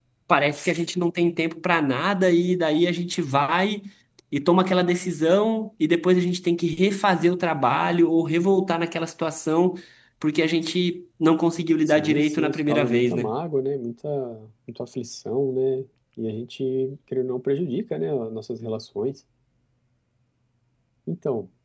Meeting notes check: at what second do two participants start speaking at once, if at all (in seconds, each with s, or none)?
11.9 s